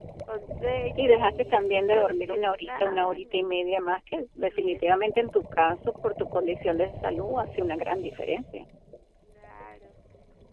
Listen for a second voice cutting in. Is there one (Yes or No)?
Yes